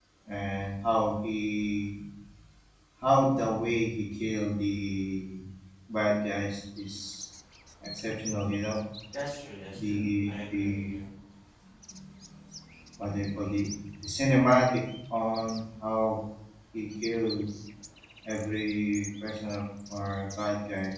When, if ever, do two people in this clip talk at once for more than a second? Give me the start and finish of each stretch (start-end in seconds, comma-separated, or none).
9.7-10.9